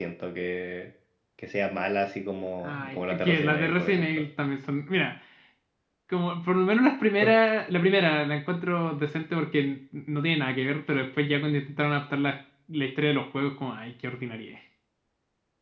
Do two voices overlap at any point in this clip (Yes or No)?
Yes